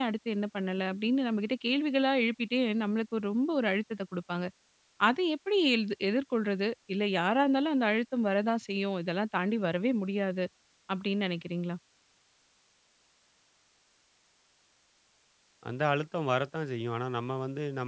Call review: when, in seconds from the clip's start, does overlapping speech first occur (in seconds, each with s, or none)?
none